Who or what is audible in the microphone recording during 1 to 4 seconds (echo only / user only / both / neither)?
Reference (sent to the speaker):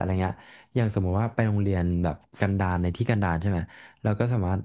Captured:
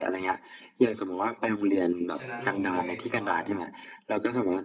both